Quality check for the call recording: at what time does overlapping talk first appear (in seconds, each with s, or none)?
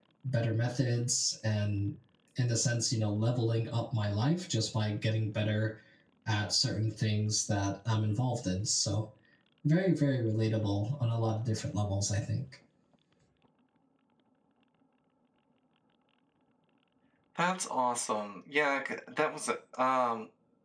none